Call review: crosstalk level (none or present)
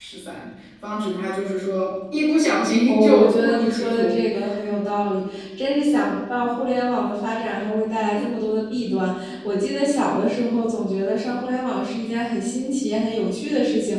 present